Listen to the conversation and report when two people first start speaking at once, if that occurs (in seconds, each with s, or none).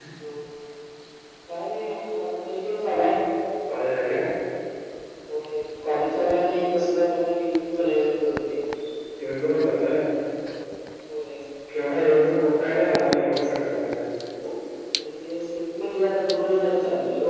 none